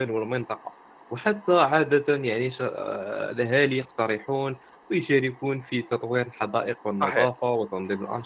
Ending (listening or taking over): listening